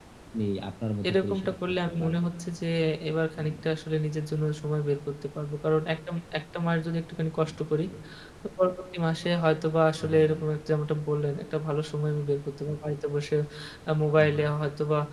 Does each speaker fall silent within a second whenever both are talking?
No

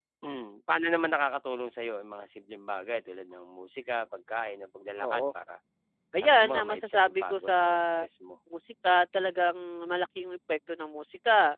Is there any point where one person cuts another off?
Yes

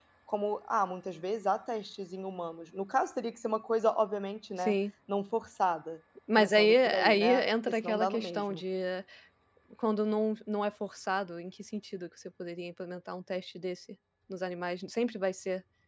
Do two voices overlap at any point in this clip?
Yes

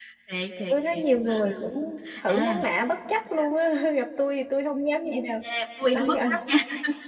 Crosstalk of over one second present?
No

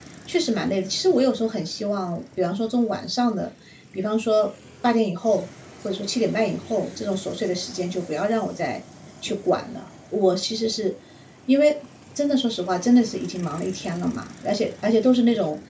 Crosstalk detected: No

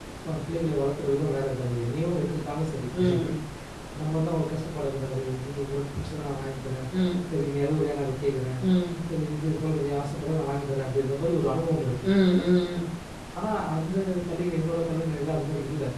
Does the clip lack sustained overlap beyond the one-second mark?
Yes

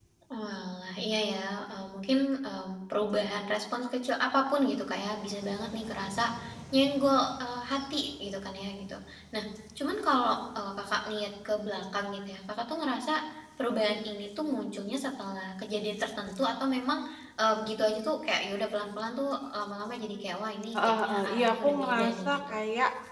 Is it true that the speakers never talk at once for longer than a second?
No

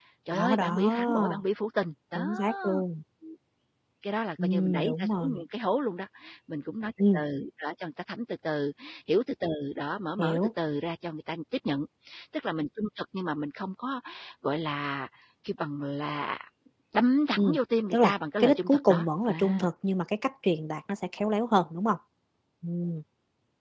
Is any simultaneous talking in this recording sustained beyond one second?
Yes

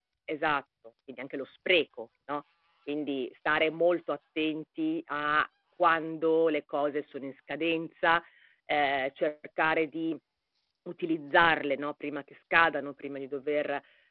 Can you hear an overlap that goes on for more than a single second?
No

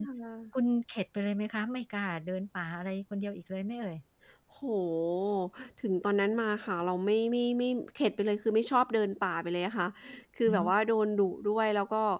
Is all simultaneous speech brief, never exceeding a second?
Yes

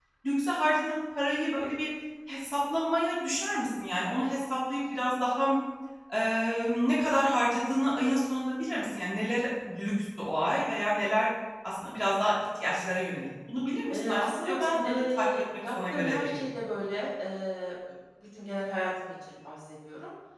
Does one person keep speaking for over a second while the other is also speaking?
Yes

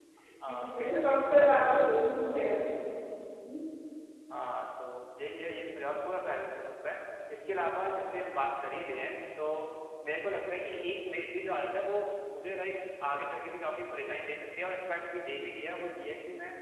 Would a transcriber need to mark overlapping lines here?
Yes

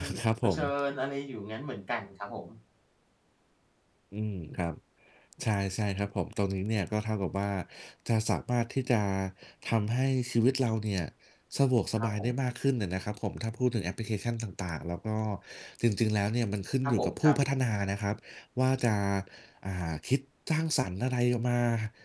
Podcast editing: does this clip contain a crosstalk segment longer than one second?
No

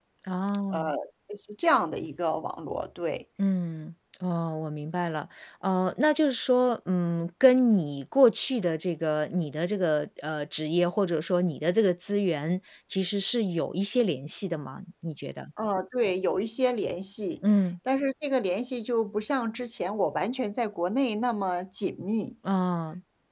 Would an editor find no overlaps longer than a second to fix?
Yes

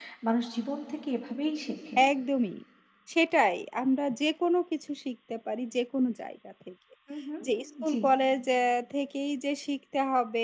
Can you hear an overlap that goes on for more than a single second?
No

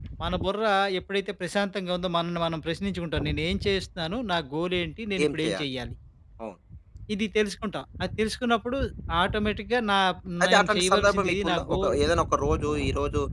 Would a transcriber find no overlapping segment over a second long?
No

